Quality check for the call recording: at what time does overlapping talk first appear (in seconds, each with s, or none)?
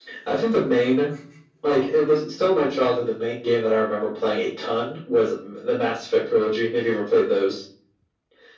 none